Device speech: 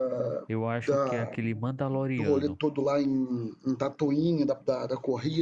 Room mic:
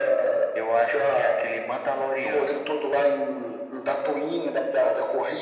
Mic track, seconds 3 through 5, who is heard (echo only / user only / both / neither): echo only